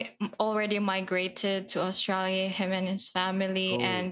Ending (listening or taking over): listening